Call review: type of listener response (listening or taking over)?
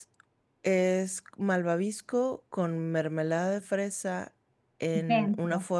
listening